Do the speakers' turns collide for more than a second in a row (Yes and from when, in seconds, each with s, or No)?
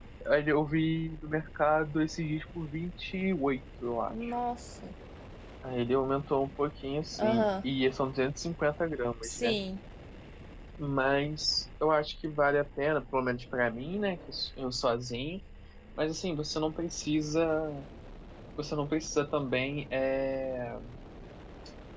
No